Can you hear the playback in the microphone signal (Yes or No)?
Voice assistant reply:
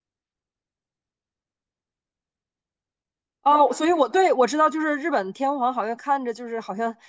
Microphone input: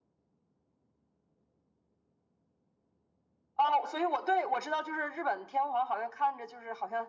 Yes